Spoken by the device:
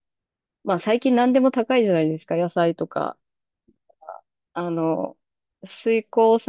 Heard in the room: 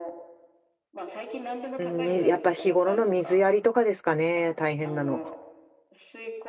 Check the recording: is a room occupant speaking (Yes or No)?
Yes